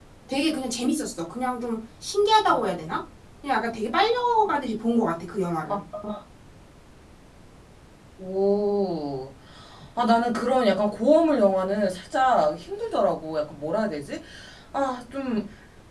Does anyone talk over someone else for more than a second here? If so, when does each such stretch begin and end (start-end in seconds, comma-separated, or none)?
none